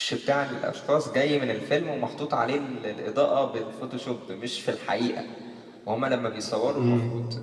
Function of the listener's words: listening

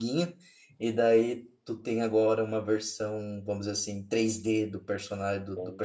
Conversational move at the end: listening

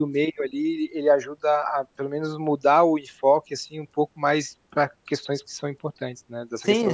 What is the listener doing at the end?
taking over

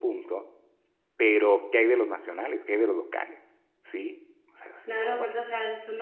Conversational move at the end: taking over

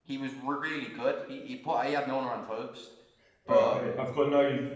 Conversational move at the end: taking over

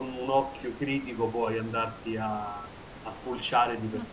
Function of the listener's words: taking over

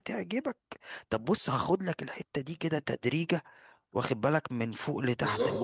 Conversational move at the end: listening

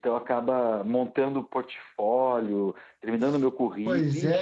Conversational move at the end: taking over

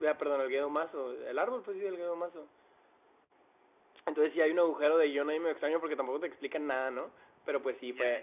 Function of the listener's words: listening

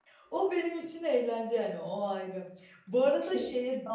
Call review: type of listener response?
listening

